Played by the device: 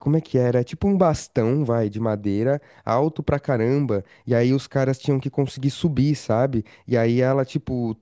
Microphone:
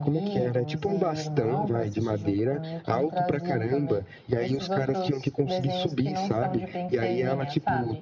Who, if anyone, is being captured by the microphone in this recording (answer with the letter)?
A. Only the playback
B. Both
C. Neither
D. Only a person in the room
B